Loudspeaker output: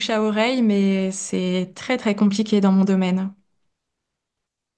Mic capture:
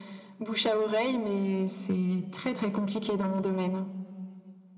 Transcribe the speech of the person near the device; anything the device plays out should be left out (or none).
none